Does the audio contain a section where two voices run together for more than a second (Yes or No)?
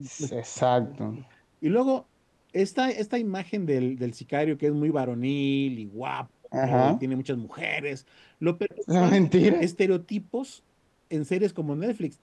No